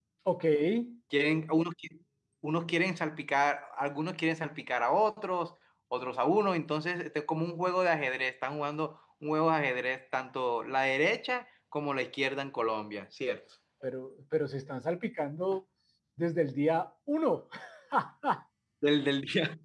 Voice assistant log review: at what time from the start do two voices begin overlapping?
none

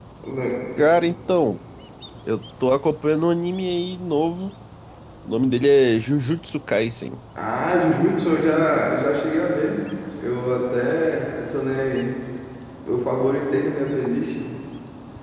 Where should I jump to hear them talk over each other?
none

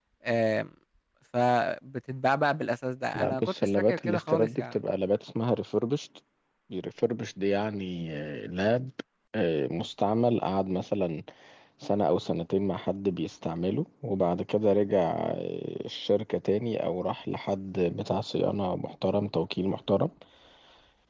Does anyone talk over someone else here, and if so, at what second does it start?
3 s

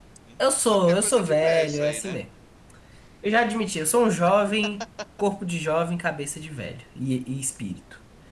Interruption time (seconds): 1 s

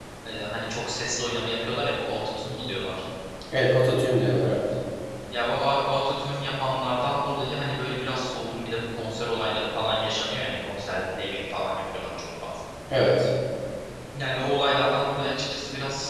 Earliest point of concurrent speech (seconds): none

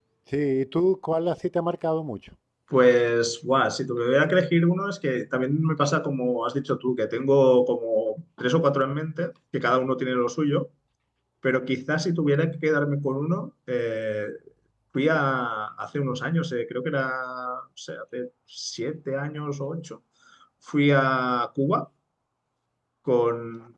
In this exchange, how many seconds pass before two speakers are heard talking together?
none

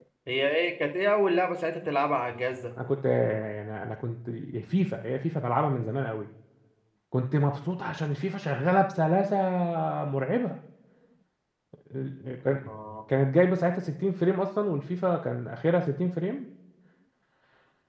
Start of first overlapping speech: none

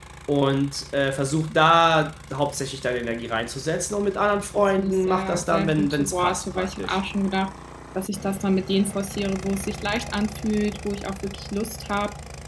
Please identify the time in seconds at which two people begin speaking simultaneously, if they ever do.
5 s

